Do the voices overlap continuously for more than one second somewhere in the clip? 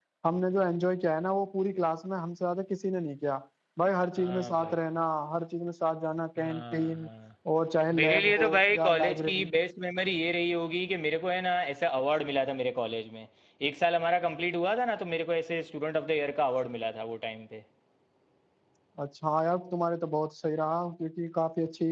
Yes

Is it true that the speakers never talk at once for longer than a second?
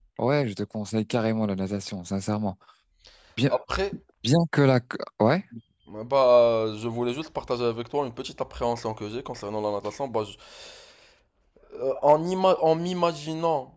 Yes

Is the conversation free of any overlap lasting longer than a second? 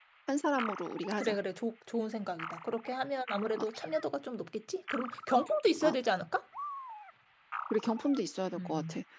Yes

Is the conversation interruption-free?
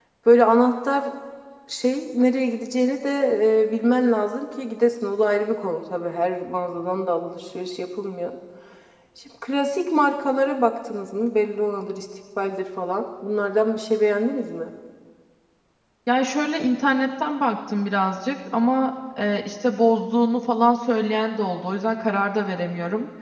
Yes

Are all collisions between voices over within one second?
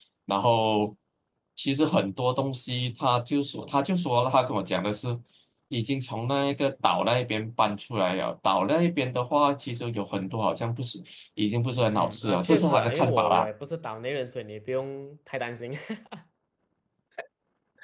No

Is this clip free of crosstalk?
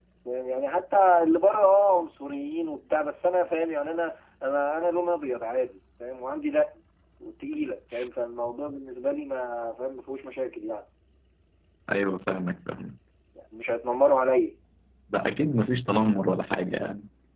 Yes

